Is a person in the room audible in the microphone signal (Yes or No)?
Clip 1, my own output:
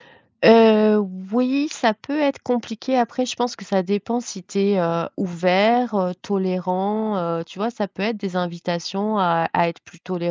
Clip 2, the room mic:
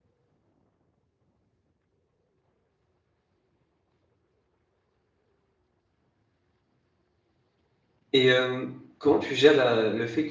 Yes